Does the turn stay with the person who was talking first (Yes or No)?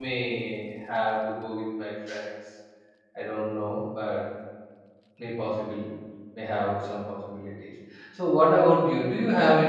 Yes